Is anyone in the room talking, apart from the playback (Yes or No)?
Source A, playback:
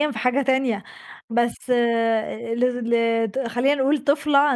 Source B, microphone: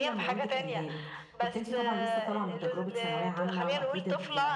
Yes